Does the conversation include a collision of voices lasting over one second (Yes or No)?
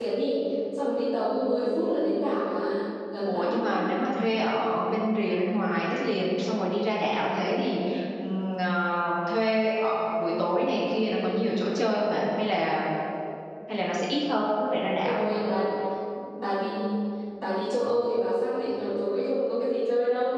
No